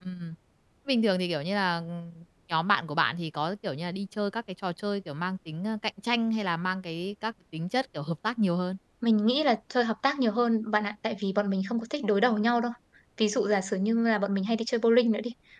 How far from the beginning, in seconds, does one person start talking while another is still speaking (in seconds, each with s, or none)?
none